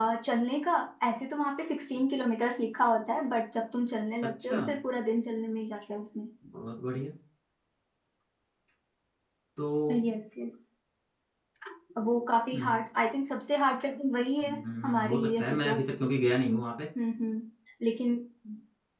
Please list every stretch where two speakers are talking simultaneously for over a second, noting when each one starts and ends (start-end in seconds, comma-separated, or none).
14.5-15.8